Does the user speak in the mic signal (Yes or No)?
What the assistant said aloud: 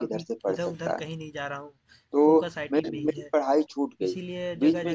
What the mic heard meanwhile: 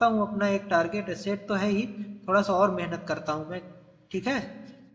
Yes